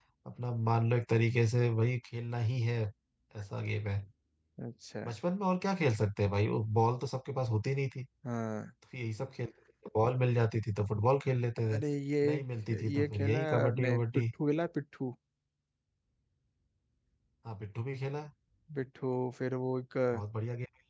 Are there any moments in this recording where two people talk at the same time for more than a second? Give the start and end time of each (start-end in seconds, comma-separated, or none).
12.9-14.2